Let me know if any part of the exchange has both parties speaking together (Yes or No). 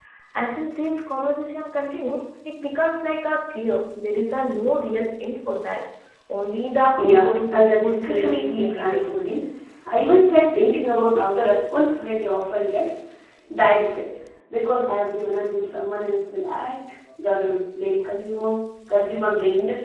Yes